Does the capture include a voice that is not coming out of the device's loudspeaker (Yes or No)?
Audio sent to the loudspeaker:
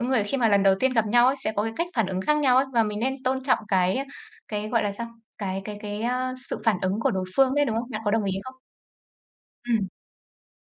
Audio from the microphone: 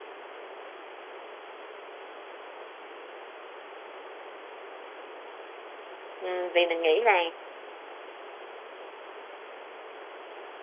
Yes